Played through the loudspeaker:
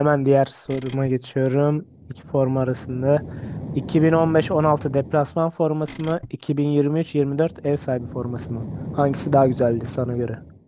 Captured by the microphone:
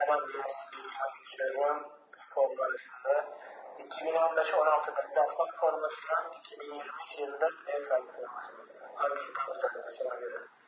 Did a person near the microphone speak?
No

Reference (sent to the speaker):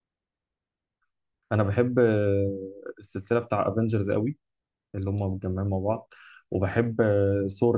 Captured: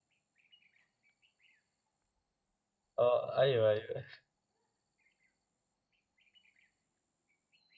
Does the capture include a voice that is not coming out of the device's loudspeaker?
Yes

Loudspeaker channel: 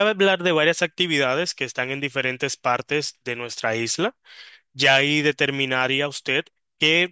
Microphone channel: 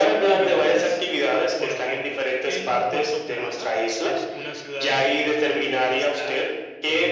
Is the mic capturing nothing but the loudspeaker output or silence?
No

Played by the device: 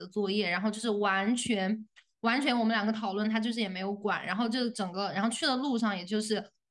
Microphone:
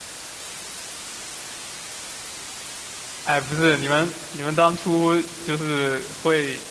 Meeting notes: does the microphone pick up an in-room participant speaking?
Yes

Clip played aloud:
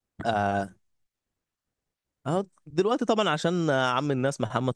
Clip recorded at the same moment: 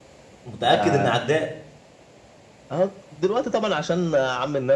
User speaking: Yes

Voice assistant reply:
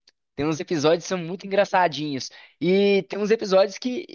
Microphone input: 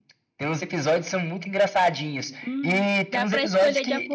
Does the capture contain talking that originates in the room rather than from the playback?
Yes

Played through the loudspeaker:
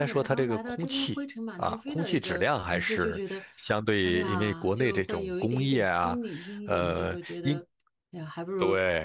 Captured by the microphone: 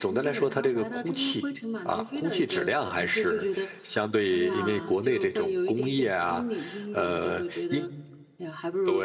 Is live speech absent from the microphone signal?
Yes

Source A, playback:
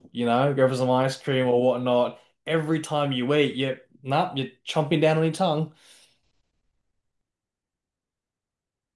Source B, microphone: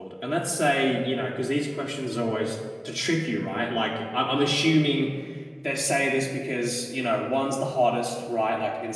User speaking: Yes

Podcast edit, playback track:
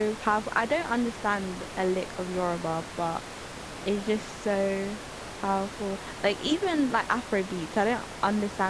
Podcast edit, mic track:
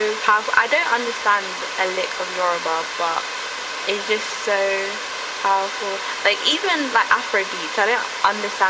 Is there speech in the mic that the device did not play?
No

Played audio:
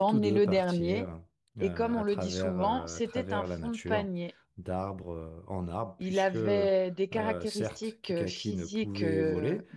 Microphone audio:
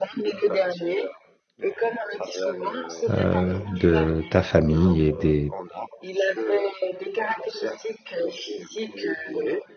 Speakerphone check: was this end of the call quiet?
No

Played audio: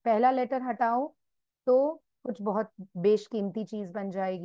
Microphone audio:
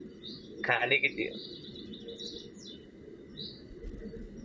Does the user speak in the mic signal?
Yes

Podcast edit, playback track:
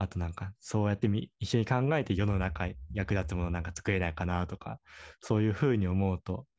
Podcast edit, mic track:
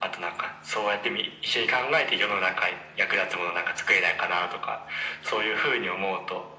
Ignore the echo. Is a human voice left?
No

